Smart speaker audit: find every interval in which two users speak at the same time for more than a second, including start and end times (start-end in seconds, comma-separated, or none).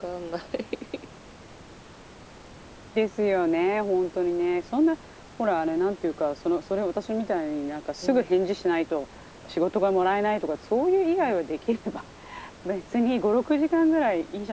none